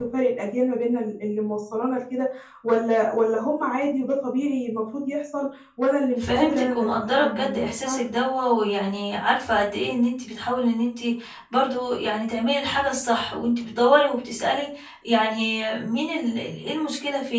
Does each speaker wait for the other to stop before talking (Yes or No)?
No